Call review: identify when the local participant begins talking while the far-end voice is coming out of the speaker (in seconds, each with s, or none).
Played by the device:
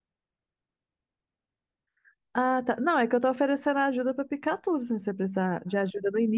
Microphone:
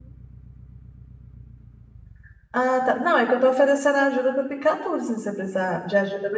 none